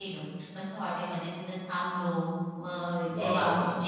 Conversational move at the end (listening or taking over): listening